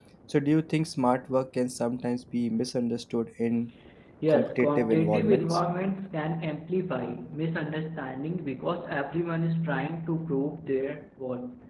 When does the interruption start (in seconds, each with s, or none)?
4.3 s